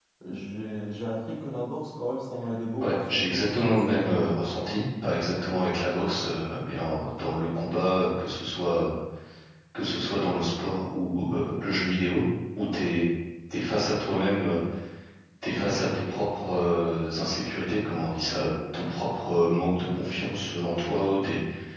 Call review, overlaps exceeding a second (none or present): present